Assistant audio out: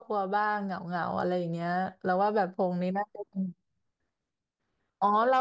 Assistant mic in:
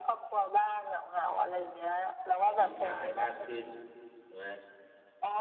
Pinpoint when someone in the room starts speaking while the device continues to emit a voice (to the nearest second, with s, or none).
3 s